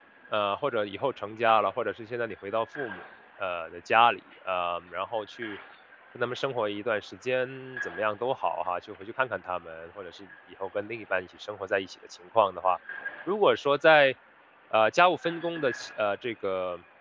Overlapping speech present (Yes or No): No